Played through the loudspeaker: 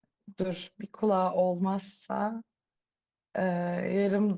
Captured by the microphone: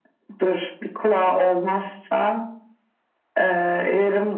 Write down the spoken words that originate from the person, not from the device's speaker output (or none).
none